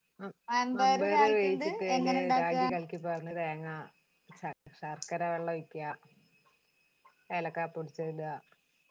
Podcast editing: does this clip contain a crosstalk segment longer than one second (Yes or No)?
Yes